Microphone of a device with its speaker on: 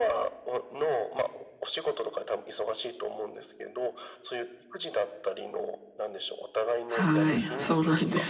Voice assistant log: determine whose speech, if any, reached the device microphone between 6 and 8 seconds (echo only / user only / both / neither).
both